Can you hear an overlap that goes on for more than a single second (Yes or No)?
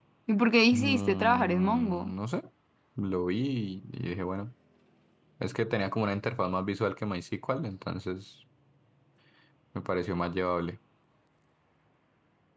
Yes